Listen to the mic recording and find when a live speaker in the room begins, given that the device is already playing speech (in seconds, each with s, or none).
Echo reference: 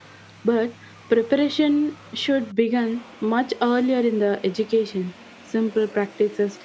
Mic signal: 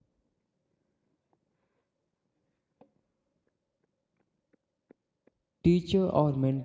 5.6 s